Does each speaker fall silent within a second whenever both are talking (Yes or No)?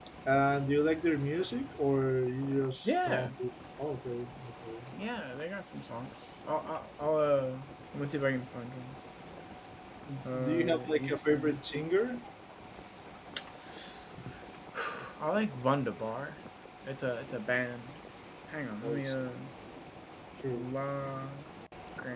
No